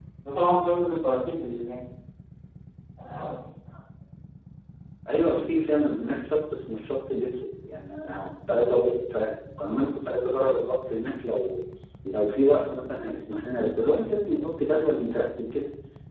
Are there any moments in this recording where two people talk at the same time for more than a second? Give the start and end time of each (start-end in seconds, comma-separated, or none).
none